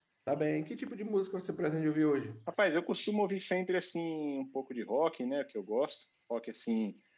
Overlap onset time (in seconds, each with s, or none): none